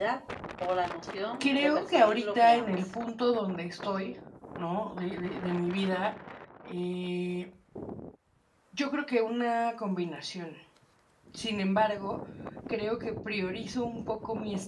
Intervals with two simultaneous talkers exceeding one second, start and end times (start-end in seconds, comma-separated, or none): 1.4-2.9